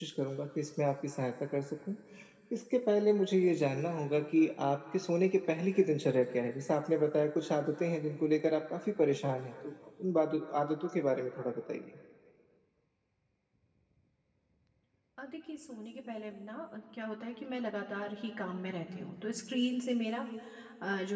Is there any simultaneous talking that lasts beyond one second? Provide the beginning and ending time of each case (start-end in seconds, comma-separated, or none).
none